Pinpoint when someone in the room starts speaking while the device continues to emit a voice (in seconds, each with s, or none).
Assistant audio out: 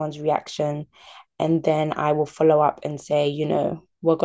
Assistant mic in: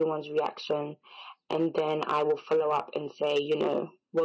none